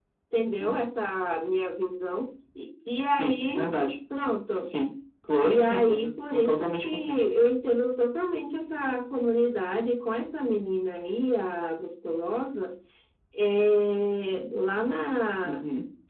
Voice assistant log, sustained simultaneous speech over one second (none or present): present